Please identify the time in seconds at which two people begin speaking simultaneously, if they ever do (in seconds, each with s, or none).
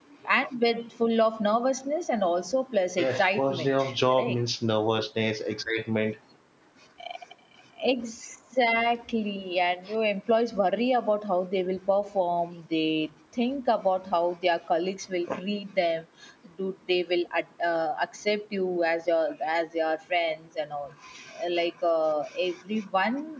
3.0 s